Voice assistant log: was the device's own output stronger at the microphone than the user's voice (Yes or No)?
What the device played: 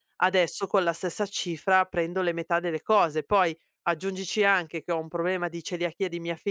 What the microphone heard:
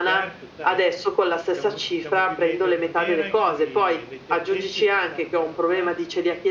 Yes